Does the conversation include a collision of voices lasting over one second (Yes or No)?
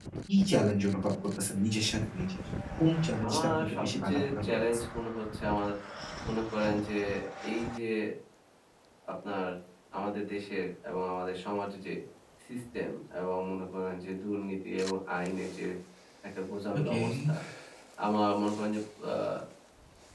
Yes